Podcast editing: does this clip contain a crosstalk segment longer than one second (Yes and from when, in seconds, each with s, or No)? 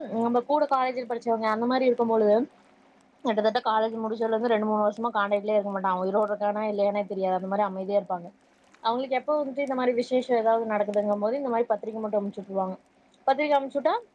No